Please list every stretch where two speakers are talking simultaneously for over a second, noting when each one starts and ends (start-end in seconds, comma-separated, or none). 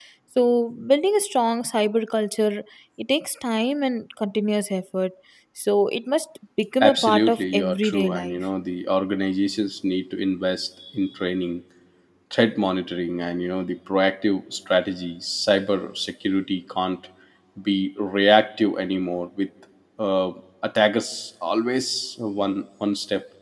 6.8-8.4